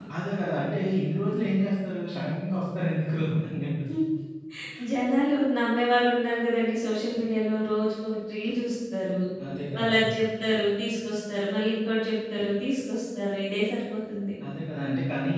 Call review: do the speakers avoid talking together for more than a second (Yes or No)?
Yes